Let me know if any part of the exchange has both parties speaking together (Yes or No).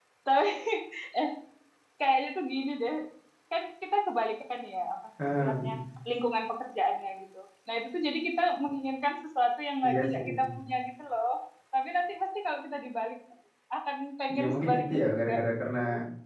Yes